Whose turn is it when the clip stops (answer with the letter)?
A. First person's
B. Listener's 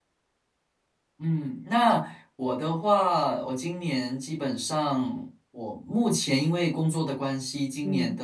A